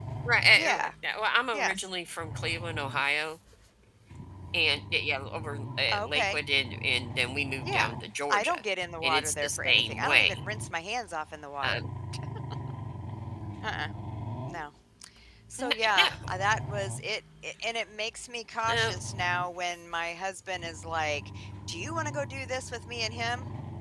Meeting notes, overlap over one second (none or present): present